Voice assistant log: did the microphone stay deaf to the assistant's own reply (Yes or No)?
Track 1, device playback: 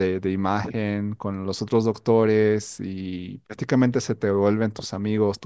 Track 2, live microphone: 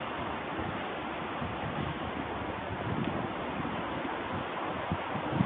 Yes